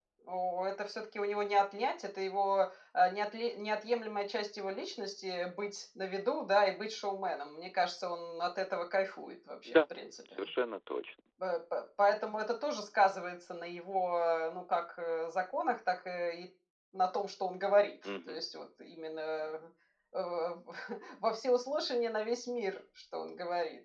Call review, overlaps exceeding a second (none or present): none